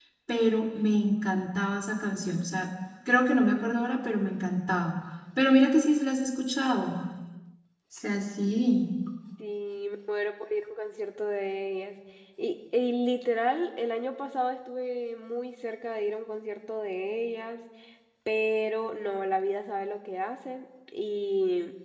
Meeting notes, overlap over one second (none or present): none